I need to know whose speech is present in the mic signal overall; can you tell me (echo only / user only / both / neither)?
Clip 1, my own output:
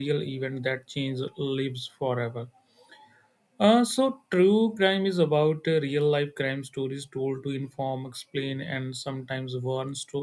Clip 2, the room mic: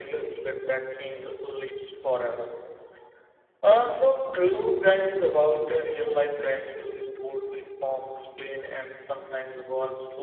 echo only